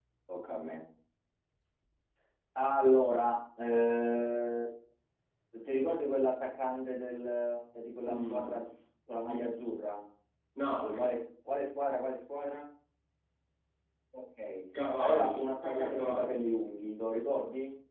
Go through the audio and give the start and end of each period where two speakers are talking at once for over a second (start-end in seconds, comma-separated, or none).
15.0-16.4